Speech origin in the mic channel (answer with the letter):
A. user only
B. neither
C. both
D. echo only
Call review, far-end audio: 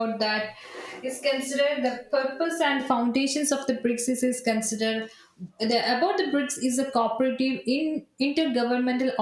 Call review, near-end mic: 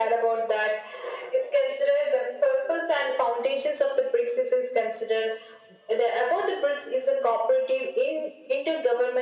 D